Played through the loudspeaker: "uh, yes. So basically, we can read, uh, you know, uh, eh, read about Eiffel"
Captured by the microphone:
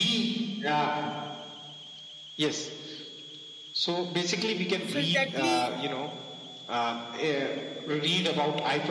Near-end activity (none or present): present